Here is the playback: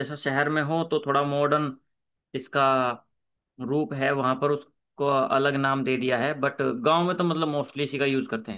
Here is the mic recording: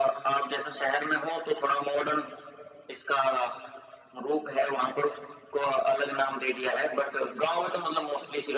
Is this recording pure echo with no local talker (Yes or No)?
Yes